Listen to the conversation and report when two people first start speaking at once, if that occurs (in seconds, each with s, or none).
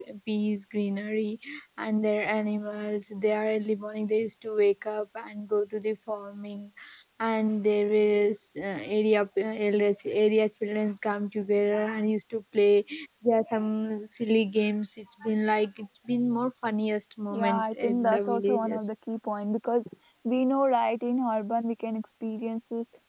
17.3 s